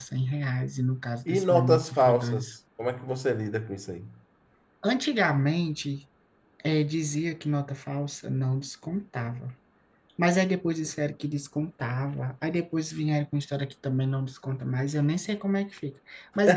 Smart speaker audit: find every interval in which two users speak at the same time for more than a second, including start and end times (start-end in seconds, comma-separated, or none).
1.3-2.5